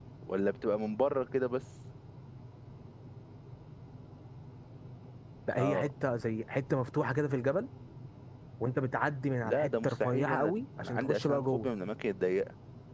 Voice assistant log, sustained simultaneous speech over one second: present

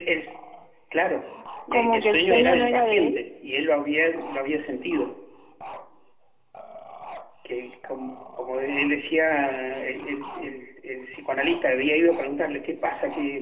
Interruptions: present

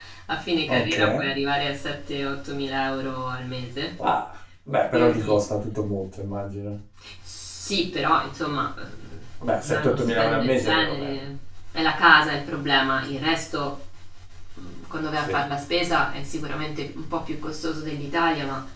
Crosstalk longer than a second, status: present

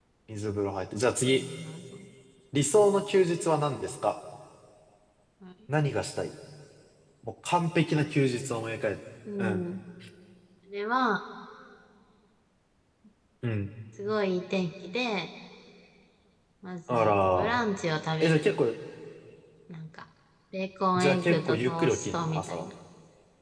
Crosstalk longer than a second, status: present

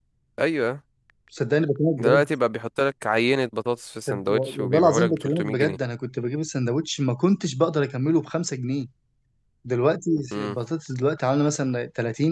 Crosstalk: present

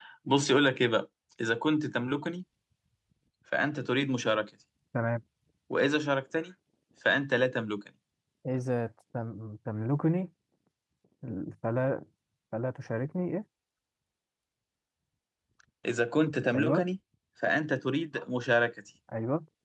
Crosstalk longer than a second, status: none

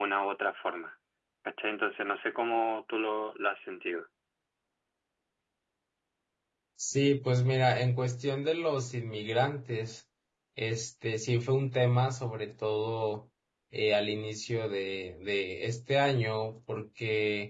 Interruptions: none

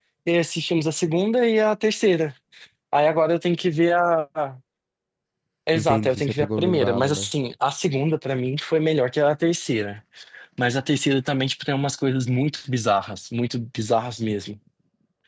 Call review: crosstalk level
present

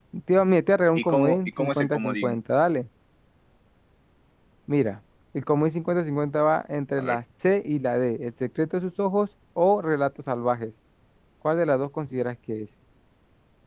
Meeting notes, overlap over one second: present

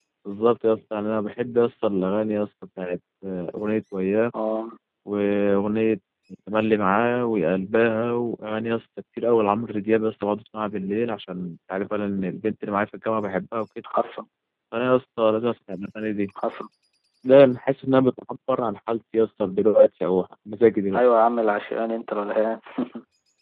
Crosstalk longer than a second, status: none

